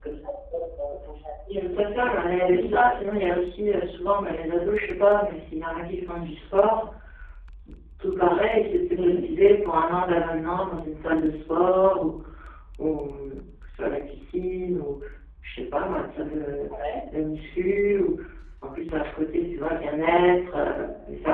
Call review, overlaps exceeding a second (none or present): present